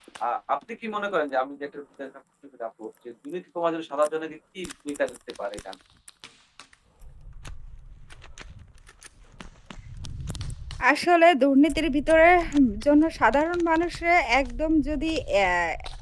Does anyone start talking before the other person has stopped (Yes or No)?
No